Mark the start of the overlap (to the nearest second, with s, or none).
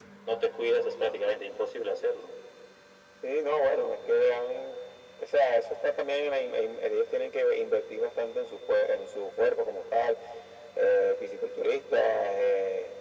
none